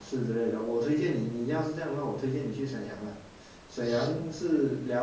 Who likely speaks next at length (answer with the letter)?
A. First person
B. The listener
A